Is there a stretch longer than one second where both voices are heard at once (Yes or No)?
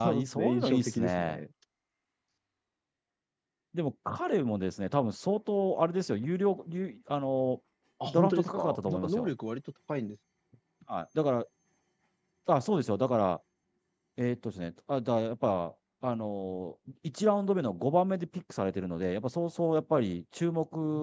Yes